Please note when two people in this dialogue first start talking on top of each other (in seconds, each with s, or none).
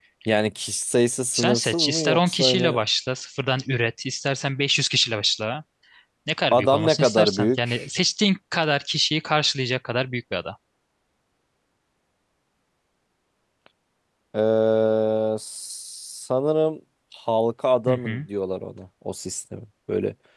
1.3 s